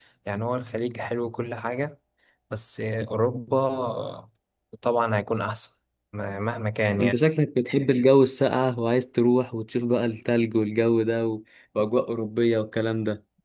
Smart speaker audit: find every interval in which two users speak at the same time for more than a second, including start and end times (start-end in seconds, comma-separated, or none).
none